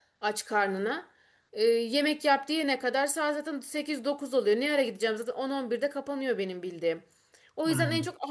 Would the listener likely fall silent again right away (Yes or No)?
Yes